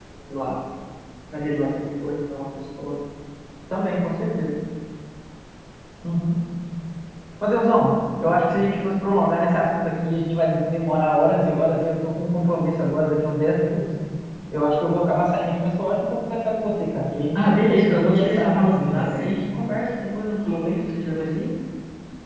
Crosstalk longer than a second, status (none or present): present